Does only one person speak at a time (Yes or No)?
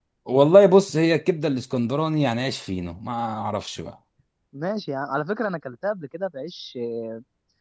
Yes